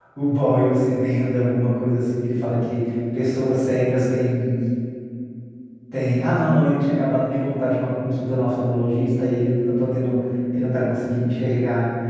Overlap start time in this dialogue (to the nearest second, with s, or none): none